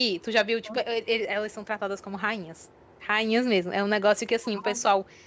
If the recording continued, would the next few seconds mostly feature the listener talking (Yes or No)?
No